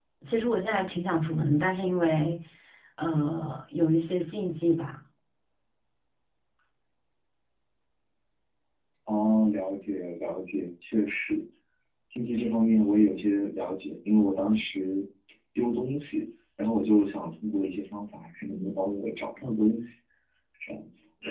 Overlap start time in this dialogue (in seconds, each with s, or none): none